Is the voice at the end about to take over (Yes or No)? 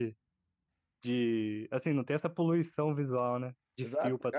Yes